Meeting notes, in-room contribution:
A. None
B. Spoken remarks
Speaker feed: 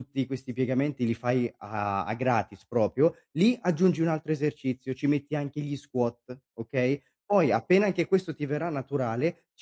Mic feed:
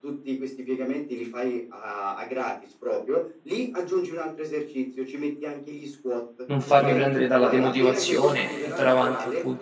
B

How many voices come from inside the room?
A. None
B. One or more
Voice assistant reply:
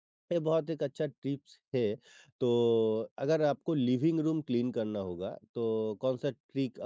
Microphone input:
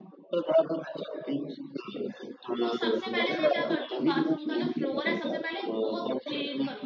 B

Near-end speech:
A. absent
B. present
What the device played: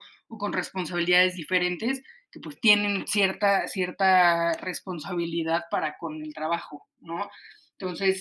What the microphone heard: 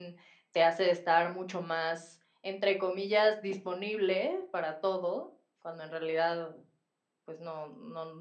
B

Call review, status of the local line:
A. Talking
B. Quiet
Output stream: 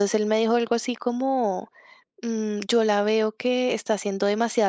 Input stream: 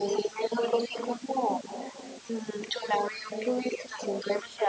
B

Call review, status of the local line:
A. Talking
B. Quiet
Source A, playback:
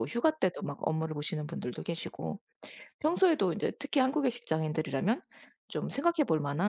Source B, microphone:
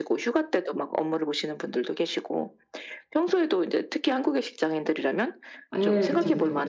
A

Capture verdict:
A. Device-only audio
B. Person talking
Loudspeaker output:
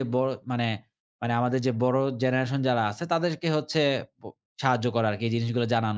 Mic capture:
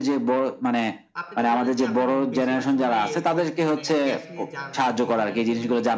B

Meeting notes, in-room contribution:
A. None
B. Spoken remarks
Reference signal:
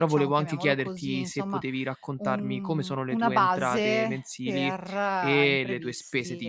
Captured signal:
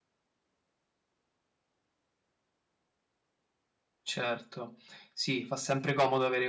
B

